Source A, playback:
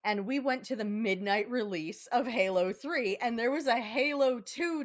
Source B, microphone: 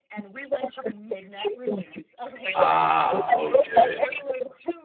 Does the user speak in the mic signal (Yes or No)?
Yes